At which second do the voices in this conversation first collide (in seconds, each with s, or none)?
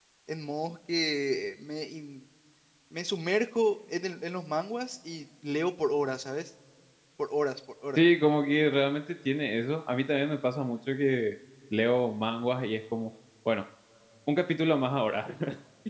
none